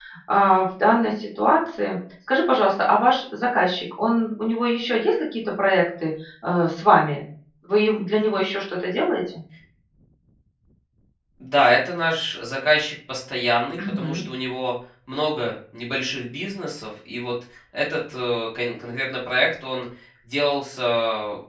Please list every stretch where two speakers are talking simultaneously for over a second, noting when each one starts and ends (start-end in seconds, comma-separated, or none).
none